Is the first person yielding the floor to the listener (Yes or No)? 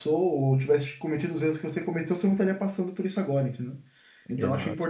No